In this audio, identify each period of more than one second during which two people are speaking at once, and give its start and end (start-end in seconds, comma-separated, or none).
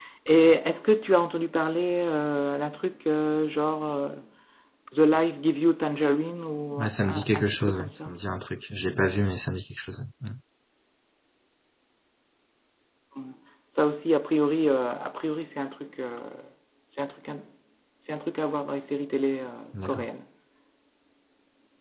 6.8-8.1